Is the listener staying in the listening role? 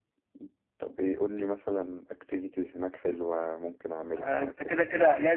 No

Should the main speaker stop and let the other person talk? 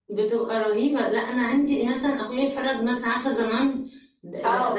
Yes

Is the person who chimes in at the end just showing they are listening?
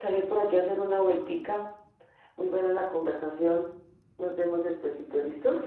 No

